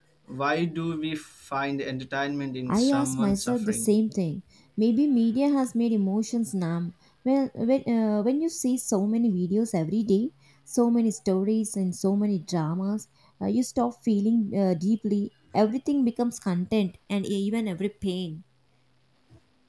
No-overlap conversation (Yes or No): No